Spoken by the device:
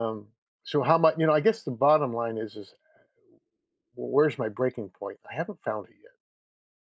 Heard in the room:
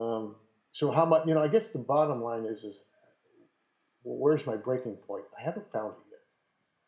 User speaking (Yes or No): No